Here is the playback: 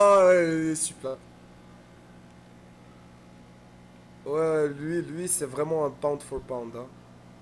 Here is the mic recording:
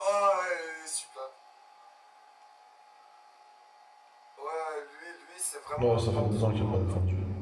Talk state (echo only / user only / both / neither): both